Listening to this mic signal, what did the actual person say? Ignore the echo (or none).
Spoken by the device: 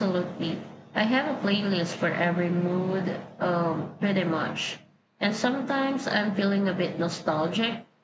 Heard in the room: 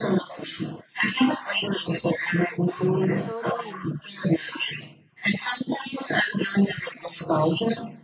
Totally.